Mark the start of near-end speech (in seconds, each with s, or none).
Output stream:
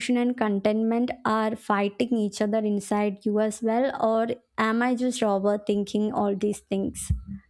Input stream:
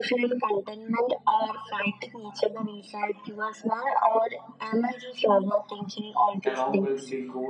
6.4 s